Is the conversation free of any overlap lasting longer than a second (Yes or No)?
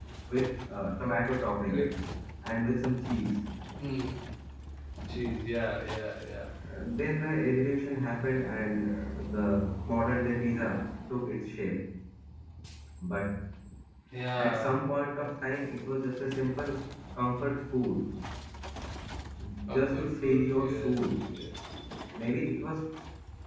No